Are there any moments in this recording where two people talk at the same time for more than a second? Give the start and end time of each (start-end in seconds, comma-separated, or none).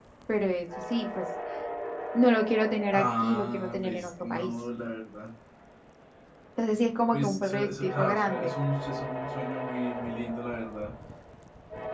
2.9-4.5, 7.1-8.5